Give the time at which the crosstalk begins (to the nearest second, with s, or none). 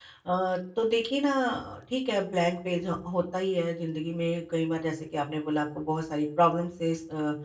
none